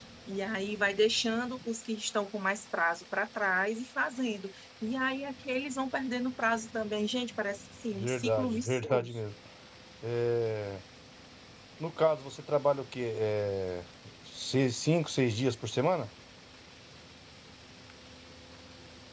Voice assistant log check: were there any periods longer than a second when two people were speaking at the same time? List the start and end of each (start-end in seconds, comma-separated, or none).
7.9-9.2